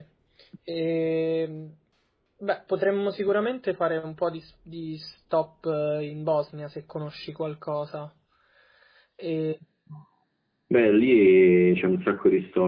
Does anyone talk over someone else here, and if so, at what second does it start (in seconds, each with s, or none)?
none